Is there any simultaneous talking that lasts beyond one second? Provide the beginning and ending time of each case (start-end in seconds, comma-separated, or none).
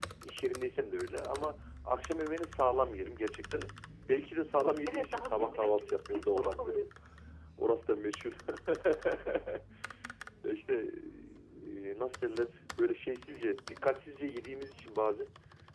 4.8-6.8